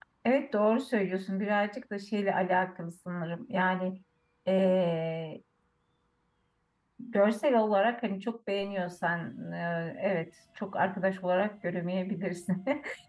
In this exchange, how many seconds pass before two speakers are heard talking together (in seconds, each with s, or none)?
none